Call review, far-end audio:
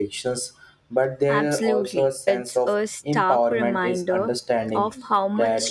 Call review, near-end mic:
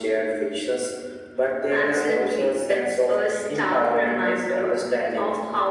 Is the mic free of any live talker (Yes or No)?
Yes